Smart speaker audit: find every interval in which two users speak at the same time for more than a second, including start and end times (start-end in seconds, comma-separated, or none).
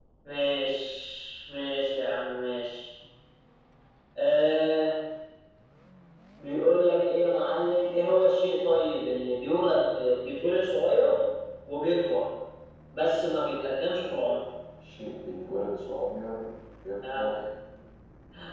none